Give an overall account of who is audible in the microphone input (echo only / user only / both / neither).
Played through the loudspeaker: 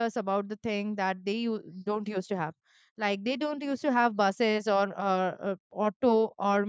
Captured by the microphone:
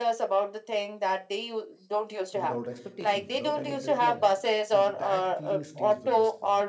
both